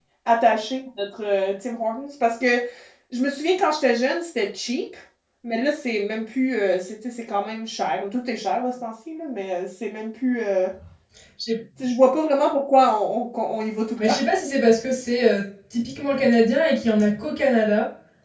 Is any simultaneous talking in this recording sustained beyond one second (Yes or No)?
No